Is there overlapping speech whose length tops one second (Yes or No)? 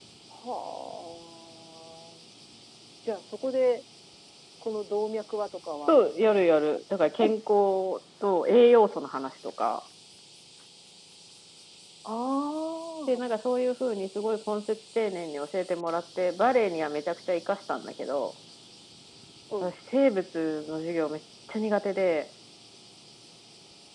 No